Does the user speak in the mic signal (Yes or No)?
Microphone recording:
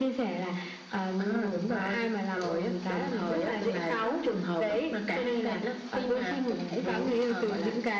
No